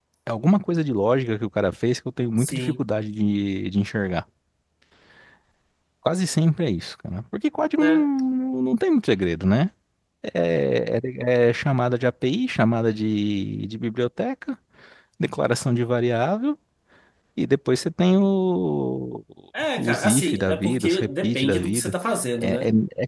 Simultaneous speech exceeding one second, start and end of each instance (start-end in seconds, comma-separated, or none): 19.8-21.9